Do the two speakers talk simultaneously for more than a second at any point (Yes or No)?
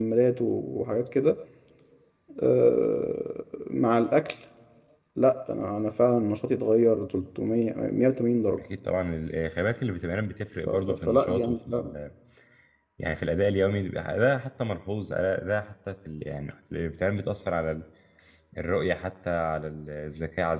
Yes